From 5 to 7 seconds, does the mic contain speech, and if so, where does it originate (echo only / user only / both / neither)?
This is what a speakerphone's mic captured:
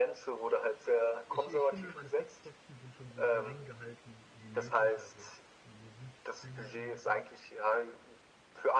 both